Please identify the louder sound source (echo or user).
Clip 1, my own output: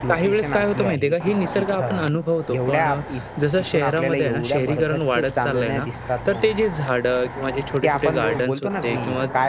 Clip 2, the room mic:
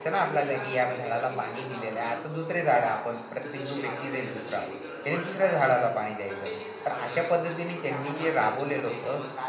user